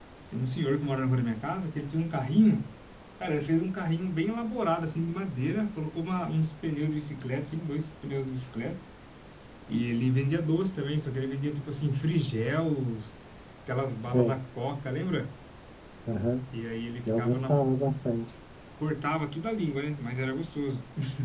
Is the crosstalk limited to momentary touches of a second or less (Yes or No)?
Yes